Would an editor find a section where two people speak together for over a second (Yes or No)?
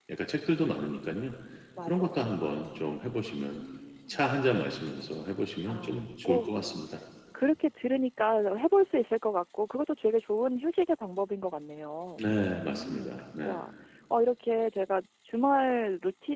Yes